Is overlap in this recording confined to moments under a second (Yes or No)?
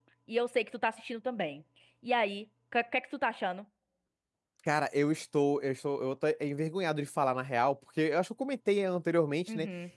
Yes